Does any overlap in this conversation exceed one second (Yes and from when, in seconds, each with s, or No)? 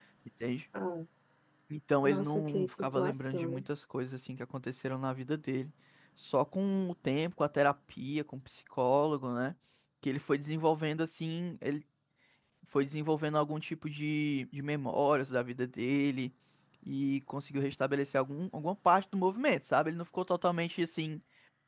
Yes, from 2.0 s